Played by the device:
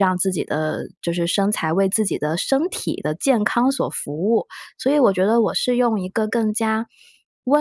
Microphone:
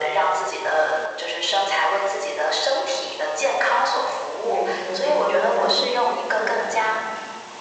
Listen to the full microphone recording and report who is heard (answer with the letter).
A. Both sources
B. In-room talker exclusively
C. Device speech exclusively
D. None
A